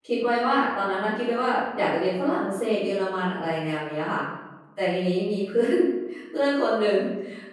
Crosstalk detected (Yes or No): No